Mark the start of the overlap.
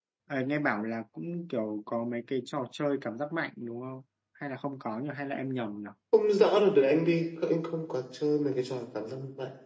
none

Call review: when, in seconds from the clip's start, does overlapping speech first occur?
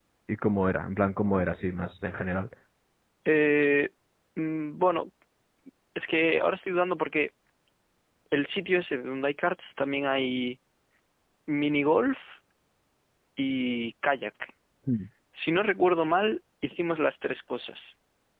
none

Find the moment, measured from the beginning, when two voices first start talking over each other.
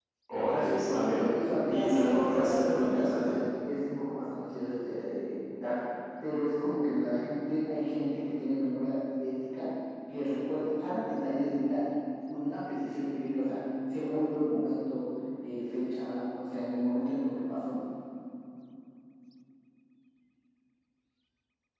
0.6 s

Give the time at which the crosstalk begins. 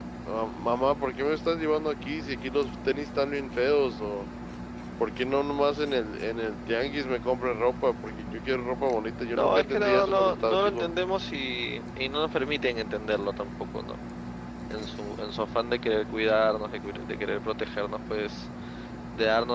9.3 s

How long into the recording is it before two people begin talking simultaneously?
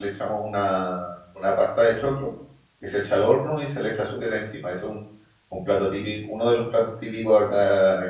none

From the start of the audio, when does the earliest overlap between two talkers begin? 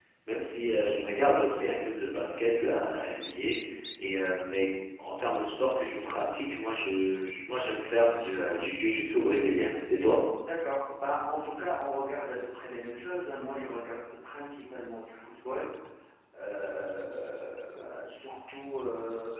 none

